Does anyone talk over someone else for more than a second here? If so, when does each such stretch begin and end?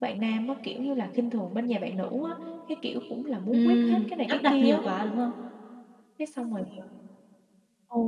3.5-4.8

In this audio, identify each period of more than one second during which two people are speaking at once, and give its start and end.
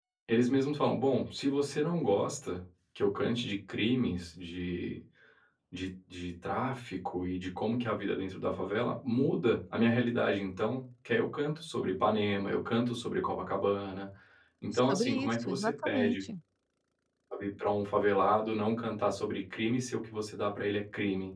14.9-16.2

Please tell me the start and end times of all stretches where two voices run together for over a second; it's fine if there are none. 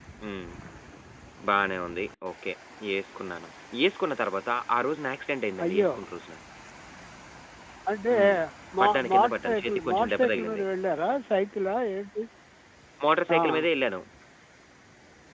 8.8-10.6

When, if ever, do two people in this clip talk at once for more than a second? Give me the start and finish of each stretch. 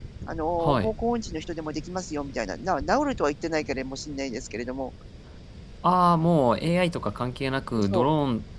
none

